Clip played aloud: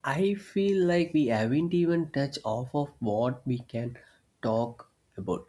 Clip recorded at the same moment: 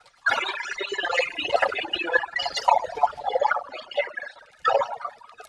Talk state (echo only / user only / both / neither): echo only